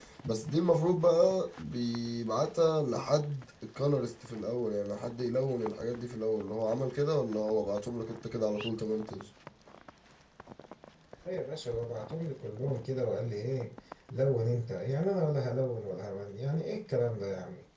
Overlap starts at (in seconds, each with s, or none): none